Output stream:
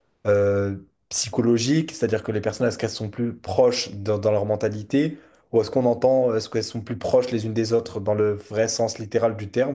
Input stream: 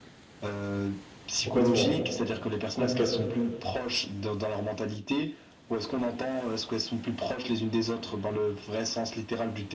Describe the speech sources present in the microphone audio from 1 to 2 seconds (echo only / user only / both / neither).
both